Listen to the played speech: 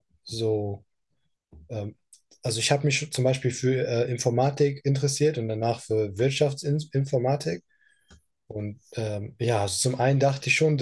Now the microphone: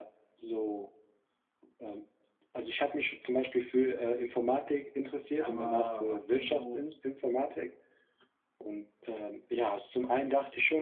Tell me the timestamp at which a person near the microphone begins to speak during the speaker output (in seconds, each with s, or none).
5.2 s